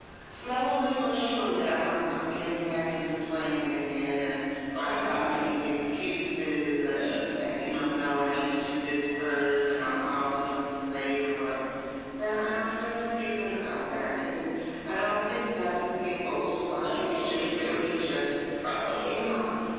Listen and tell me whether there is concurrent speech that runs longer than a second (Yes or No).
Yes